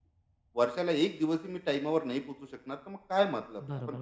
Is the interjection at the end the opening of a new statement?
Yes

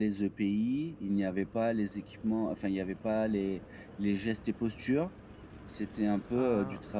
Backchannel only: Yes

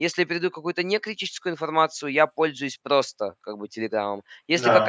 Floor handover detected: No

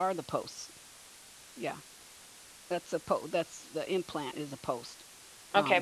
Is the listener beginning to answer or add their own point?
Yes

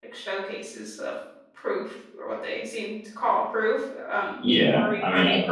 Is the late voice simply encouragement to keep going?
No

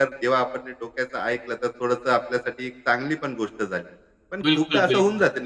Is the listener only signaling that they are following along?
Yes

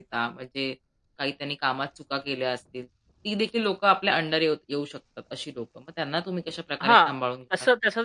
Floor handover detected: Yes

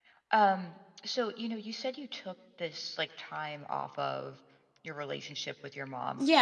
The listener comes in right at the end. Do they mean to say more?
Yes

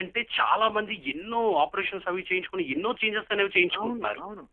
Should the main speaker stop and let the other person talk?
Yes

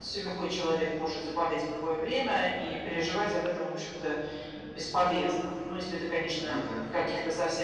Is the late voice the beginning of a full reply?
No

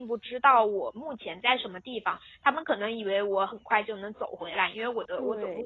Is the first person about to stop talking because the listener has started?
No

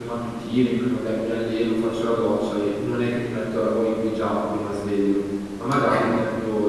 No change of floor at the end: Yes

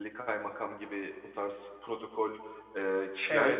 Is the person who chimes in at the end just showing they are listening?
No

